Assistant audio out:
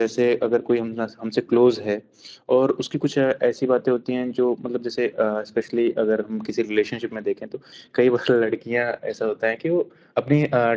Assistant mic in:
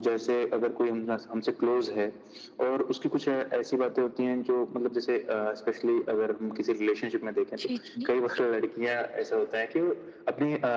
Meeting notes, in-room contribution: present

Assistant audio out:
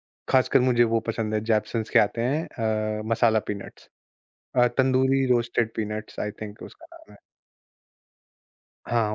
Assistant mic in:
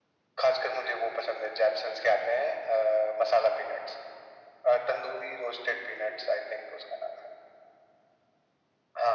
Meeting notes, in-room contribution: none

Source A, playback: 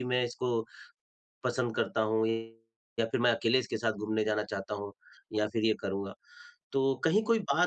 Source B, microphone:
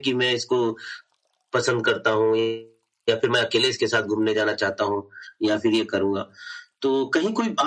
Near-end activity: none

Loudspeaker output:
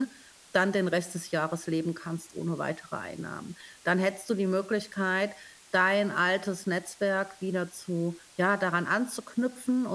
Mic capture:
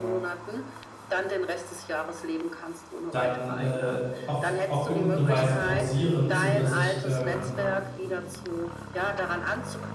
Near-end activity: present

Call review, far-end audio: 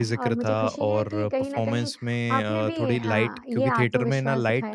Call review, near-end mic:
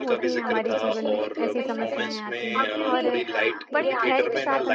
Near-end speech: present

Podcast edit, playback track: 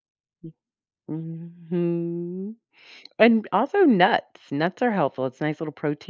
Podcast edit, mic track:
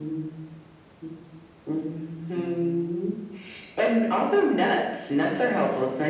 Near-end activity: present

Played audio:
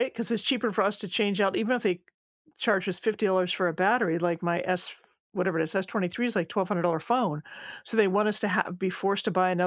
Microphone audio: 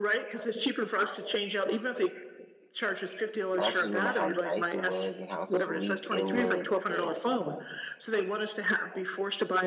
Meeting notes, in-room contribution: present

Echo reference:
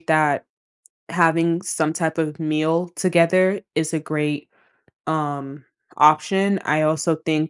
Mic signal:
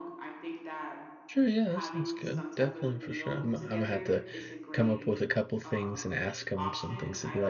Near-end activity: present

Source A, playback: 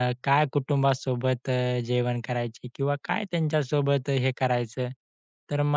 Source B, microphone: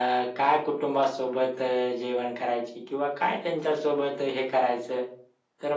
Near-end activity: none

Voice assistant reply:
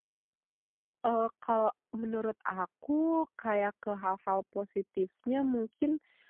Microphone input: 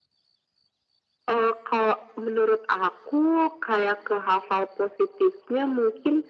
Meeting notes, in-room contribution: none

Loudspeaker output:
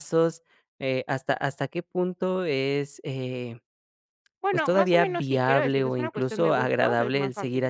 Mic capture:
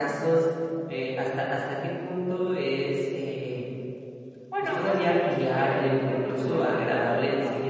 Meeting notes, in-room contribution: none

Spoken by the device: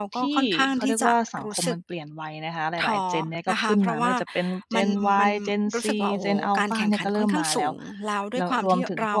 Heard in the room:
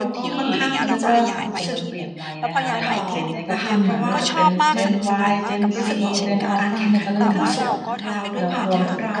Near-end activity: present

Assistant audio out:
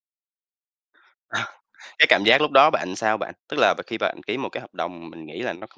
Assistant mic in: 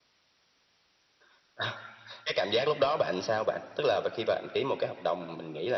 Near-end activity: none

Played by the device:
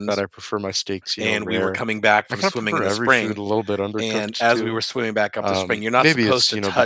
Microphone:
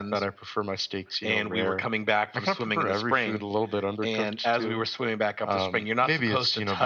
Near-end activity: none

